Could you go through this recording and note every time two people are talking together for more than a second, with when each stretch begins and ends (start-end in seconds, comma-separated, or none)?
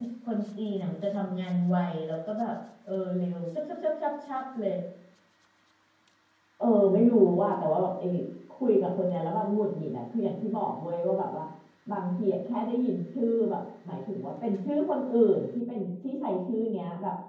none